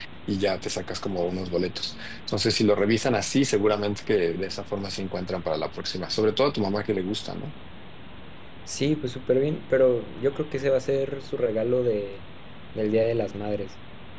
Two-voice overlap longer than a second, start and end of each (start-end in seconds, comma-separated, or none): none